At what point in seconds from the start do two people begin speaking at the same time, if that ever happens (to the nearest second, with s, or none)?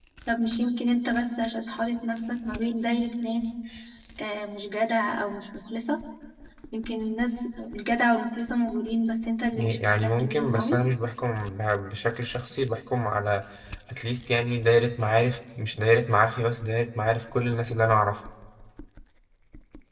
10 s